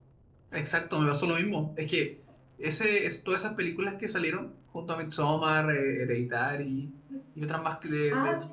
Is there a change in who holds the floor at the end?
Yes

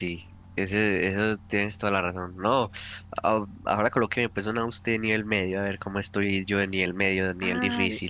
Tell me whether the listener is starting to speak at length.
Yes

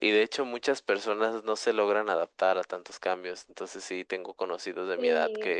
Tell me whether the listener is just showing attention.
Yes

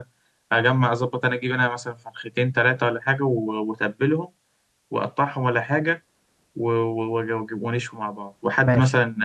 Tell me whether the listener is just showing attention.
Yes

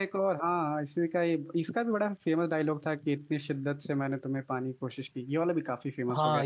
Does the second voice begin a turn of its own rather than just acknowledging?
Yes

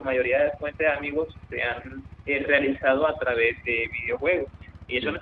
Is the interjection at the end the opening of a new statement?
No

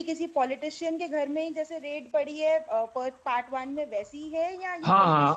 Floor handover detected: Yes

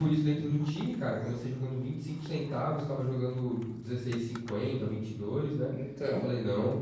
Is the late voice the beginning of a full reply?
No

